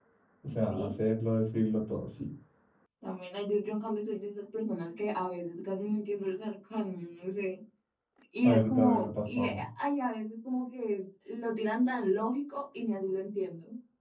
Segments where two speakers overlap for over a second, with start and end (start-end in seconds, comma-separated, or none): 8.4-9.6